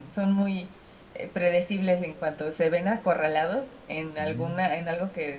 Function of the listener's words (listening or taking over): listening